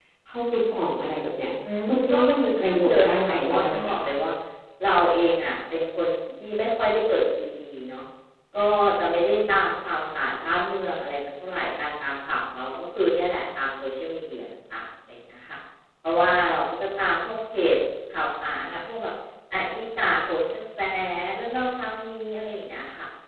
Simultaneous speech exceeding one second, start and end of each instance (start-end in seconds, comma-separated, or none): 1.9-4.0